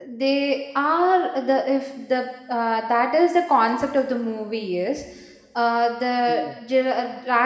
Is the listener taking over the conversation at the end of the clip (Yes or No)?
No